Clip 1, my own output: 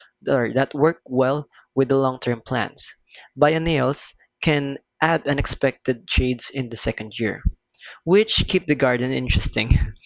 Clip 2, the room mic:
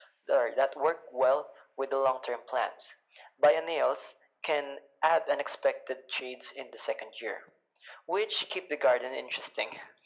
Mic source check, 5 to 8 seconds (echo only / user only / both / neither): echo only